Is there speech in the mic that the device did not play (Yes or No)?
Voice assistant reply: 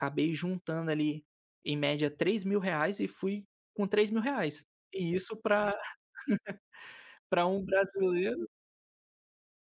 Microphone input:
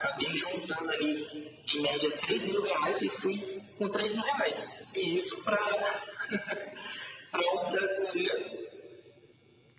No